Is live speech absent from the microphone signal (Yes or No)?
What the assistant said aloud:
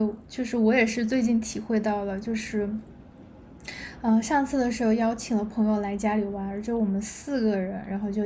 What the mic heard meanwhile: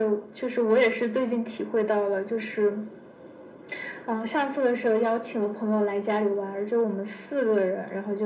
Yes